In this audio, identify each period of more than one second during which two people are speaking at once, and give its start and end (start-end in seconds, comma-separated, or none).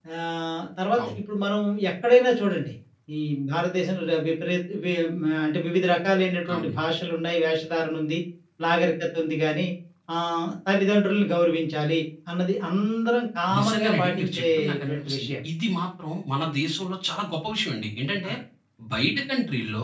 13.6-15.3